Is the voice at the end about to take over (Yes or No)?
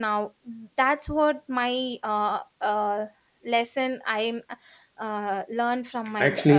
Yes